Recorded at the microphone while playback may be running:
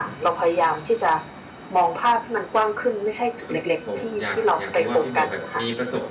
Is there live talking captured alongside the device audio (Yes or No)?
Yes